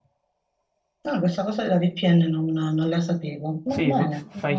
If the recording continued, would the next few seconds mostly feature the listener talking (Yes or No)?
Yes